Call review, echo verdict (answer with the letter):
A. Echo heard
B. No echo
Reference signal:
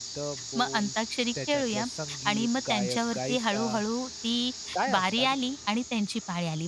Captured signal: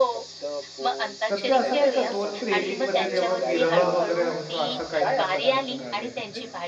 A